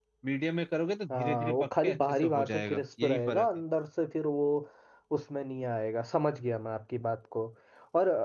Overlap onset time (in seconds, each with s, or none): 1.1 s